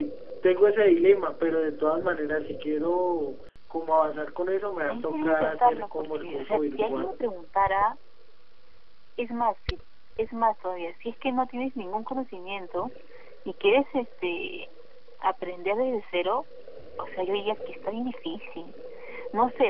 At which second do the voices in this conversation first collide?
5 s

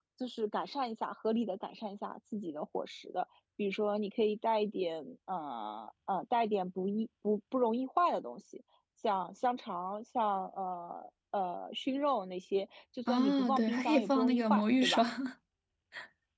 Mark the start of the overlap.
13 s

